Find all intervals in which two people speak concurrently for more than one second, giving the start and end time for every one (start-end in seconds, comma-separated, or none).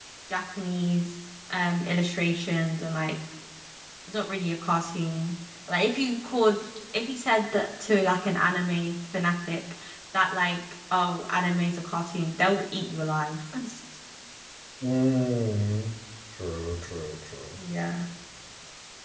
none